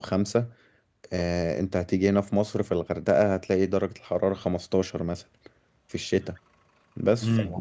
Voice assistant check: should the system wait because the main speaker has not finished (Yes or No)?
No